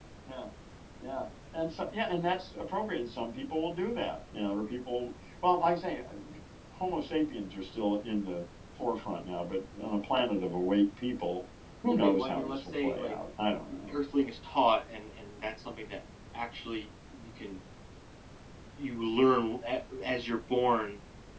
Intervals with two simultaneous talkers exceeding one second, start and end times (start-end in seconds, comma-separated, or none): 11.9-13.2